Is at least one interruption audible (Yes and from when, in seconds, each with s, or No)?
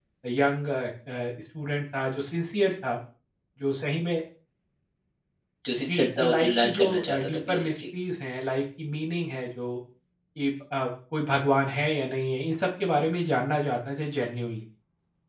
Yes, from 5.8 s